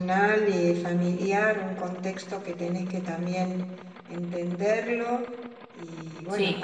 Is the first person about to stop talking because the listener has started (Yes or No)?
No